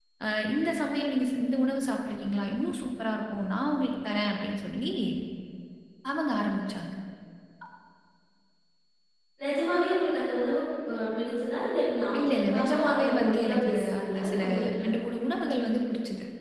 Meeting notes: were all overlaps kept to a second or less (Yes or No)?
No